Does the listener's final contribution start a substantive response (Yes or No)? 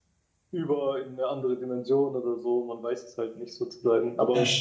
Yes